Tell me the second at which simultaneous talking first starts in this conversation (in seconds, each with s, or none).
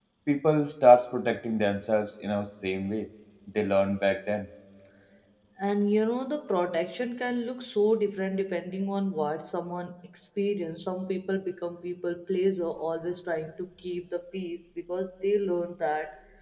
none